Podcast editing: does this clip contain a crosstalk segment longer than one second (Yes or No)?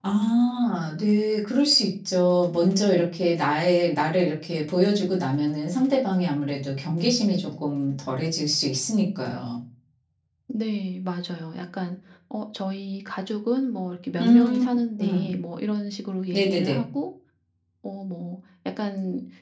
No